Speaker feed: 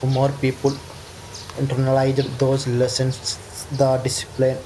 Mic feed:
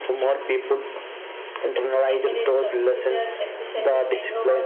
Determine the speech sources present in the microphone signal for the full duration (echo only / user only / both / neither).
both